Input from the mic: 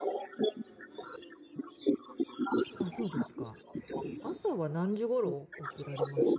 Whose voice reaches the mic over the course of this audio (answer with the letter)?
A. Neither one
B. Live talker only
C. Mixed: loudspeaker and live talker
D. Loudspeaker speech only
C